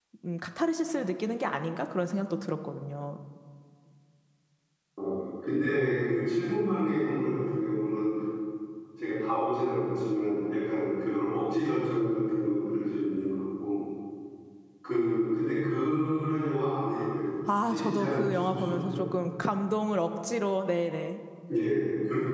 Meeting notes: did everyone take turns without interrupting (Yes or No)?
No